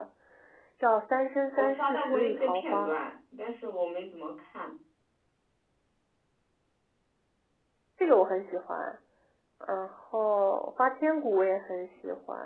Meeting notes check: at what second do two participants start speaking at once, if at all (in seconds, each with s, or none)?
1.5 s